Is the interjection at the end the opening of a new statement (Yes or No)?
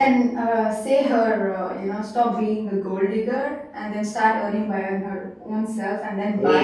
Yes